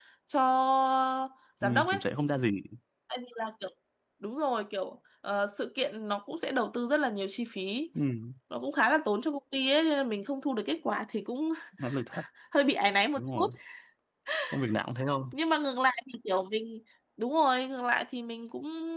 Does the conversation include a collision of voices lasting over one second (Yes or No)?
No